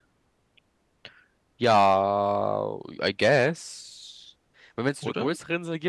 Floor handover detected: No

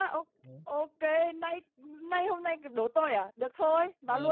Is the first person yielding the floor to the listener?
Yes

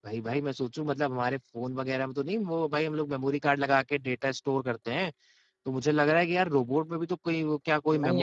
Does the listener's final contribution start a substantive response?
Yes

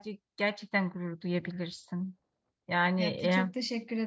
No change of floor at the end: No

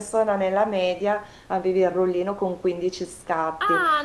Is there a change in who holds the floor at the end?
Yes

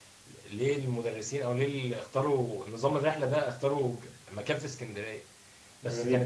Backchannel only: Yes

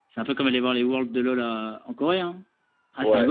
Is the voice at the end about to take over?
Yes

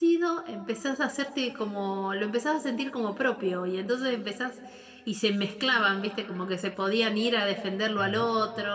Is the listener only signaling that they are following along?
Yes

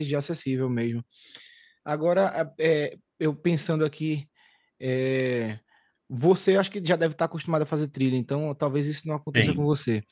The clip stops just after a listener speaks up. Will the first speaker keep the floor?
Yes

